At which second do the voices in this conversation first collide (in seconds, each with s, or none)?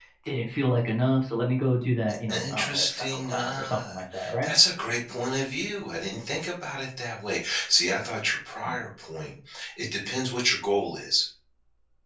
2.3 s